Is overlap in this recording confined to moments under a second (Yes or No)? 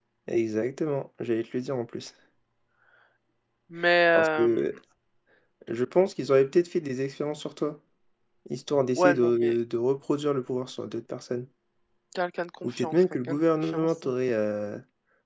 No